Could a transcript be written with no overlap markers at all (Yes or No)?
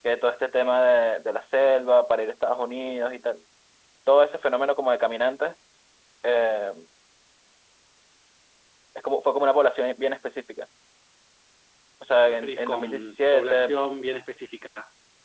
No